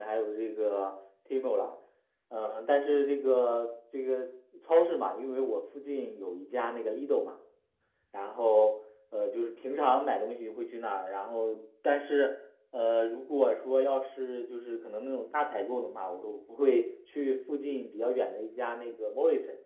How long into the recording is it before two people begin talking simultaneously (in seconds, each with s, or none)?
none